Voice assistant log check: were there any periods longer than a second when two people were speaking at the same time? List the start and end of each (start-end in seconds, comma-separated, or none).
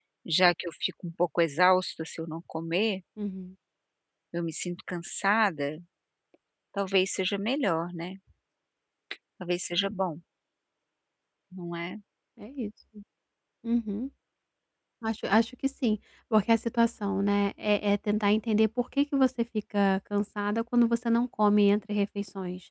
none